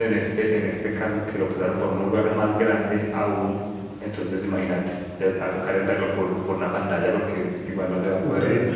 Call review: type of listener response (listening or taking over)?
taking over